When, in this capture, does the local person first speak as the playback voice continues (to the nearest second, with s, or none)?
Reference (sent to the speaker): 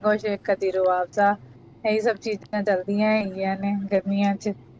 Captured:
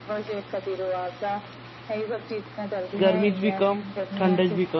3 s